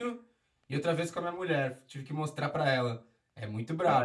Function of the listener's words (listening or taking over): taking over